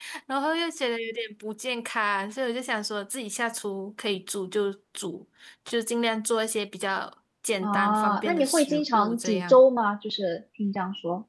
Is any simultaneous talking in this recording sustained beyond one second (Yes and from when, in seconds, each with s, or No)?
Yes, from 7.6 s